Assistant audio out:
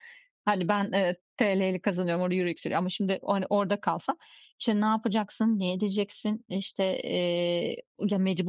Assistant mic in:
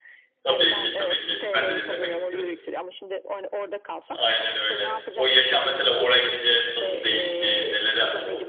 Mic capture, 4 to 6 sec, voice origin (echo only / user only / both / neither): both